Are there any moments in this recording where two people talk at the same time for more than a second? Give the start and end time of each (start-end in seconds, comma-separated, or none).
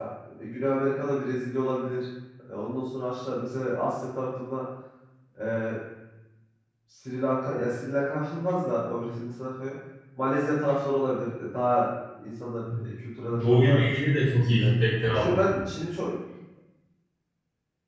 none